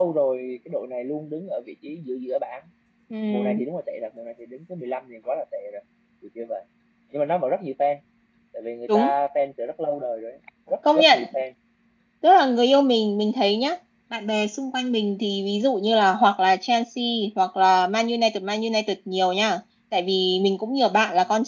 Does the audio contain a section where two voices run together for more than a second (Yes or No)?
No